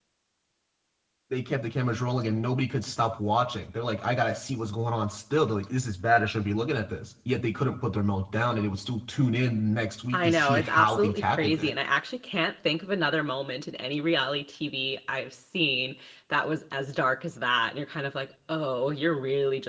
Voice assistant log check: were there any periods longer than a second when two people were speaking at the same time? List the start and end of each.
10.1-11.7

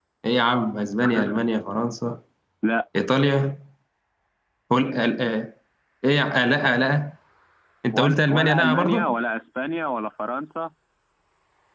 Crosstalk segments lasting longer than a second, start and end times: 7.9-9.2

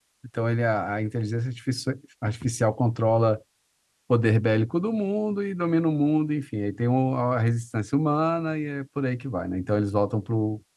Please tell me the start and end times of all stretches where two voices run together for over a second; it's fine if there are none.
none

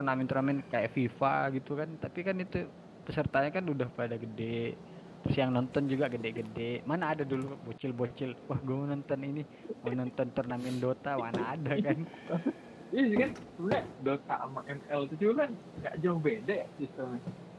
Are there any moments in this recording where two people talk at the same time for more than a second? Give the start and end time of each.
none

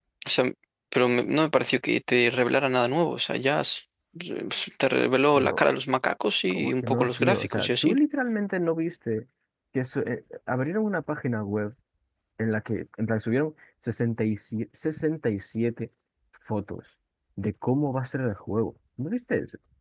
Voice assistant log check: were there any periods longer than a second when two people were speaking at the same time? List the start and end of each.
6.5-8.0

